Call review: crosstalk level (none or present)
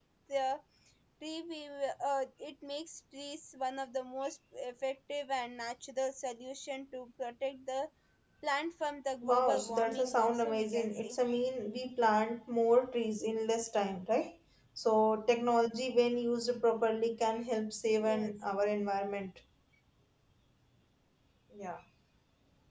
present